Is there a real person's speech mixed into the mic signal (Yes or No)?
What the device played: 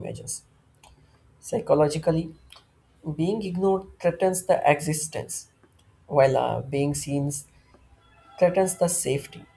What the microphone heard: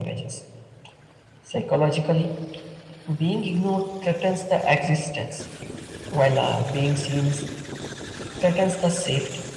No